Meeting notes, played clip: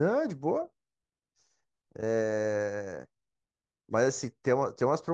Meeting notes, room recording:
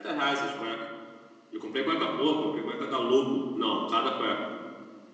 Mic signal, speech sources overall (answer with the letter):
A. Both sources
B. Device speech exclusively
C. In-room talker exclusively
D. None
C